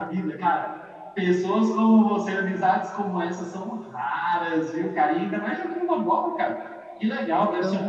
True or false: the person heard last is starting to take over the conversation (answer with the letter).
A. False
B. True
A